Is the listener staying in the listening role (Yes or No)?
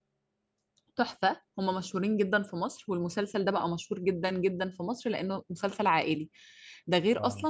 Yes